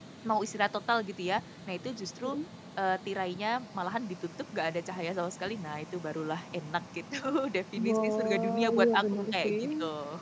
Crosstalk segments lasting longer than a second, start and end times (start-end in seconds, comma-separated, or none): 7.8-9.6